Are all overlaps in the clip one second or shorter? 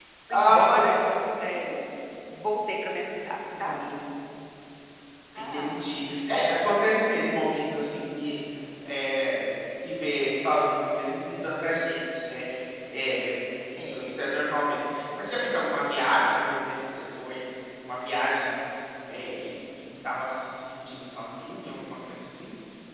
Yes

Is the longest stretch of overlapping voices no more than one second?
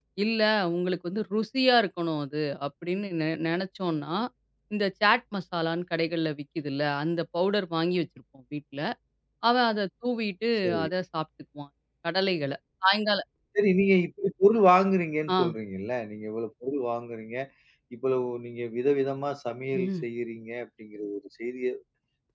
Yes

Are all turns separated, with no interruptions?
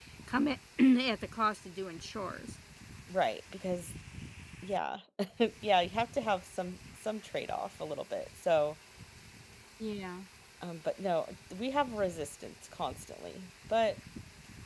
Yes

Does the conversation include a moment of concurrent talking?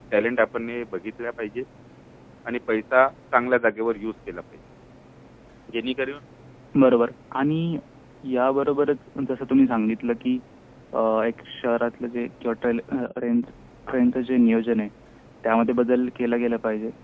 No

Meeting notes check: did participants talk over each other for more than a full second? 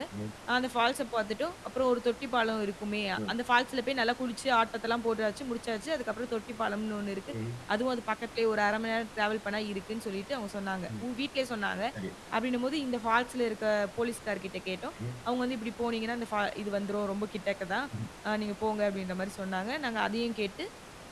No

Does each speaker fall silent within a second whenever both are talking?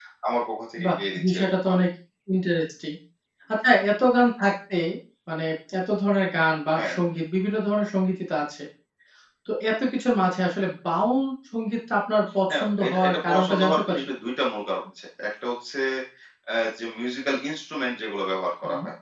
No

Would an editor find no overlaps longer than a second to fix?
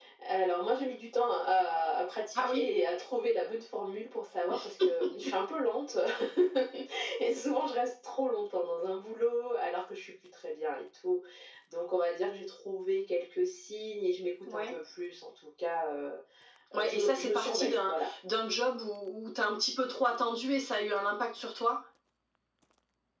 No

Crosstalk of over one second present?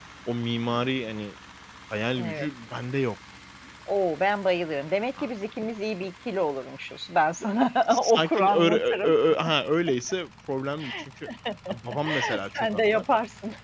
Yes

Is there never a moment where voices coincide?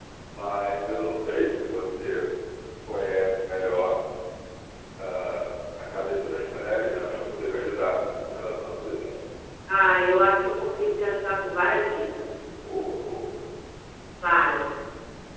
Yes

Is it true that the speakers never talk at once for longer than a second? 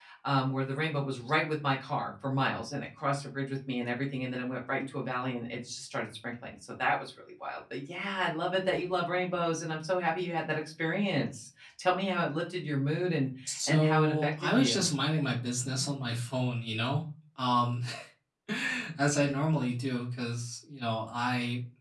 No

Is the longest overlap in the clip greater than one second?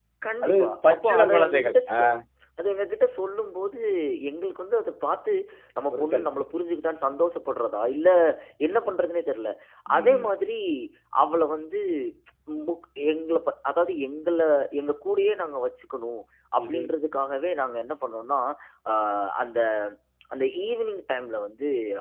Yes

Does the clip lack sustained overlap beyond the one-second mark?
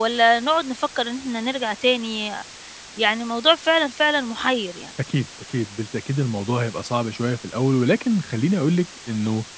Yes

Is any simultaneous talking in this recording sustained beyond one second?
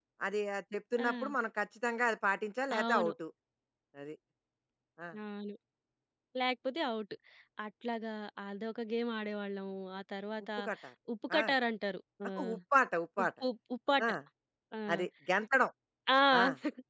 No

